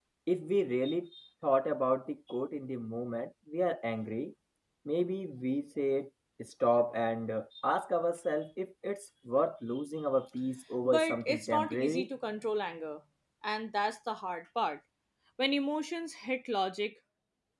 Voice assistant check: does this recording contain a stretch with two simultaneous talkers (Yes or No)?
Yes